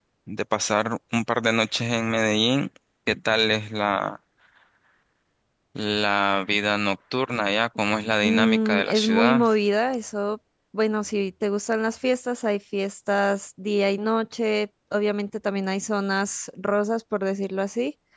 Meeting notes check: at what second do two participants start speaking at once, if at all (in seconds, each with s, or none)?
8.2 s